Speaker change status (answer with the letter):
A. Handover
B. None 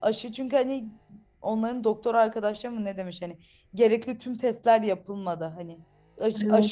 B